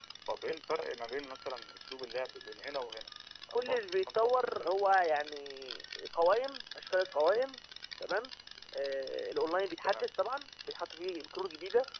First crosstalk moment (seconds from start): 4 s

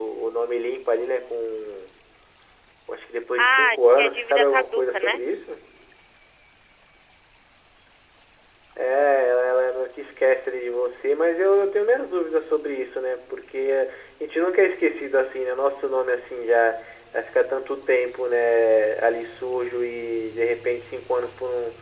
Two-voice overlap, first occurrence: 3 s

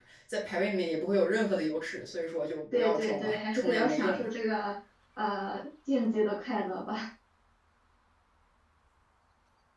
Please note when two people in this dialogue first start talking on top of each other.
3 s

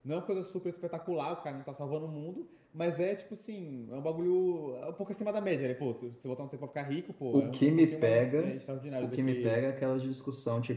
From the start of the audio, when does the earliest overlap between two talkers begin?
7 s

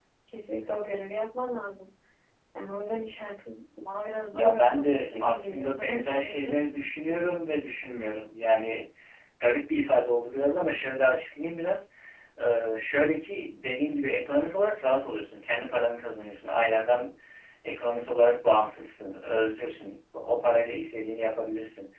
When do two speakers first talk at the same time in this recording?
4 s

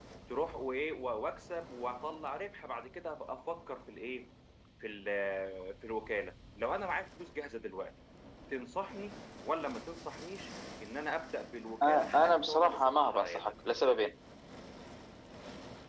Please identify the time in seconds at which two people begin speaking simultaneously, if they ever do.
12 s

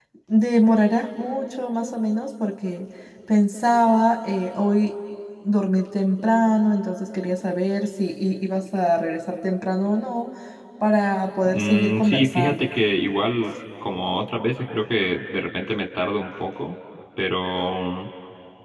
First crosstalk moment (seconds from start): 11 s

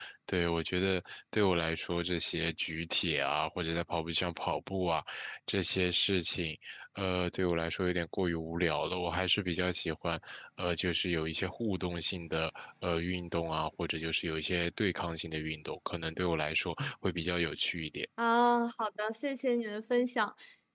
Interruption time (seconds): none

